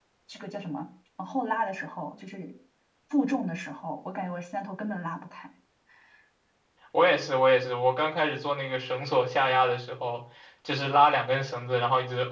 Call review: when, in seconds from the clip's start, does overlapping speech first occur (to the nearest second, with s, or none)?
none